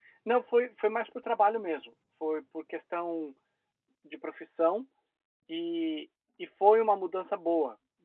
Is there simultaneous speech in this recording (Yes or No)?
No